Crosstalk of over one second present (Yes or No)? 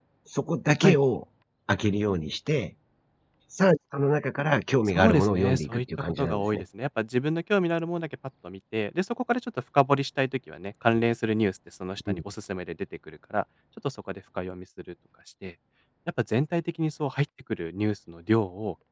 Yes